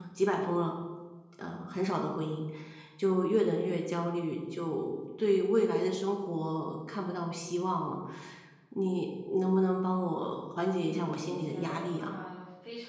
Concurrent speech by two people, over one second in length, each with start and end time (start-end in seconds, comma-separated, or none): 10.8-12.2